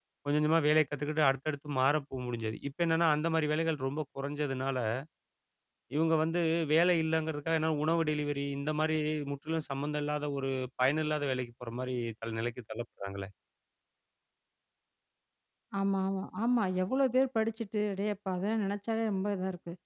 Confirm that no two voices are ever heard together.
Yes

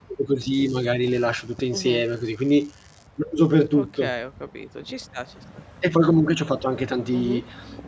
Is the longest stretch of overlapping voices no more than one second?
Yes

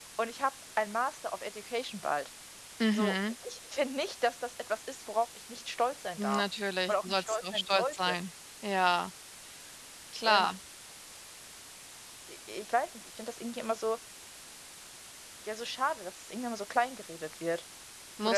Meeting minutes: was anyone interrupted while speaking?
Yes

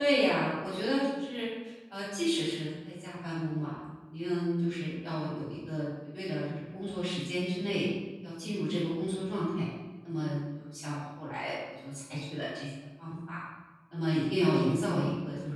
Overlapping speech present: No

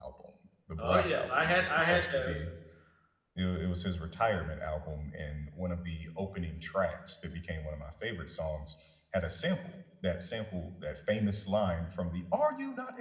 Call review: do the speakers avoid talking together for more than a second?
No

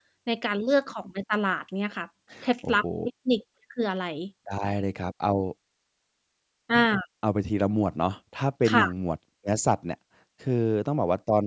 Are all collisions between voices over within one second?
Yes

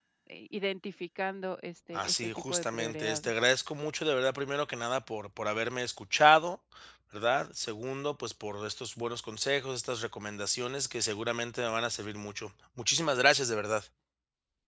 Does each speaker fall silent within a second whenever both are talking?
No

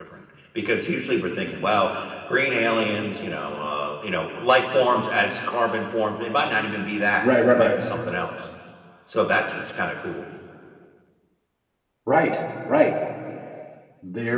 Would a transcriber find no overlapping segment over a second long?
Yes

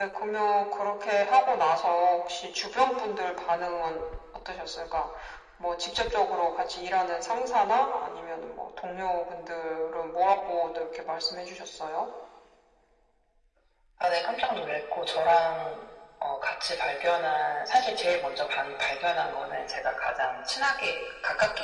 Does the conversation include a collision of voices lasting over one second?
No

